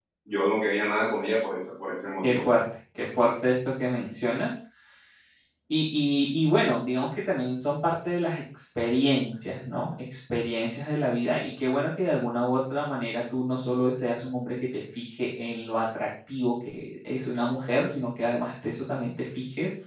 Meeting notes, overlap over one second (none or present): none